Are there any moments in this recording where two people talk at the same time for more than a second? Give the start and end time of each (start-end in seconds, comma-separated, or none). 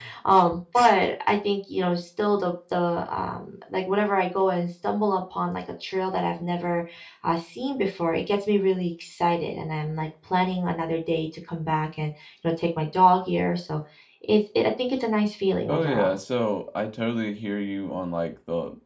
none